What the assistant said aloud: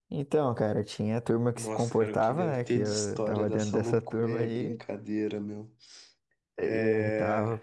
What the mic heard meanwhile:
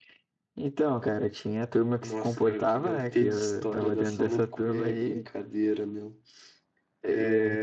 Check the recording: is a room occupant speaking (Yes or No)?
No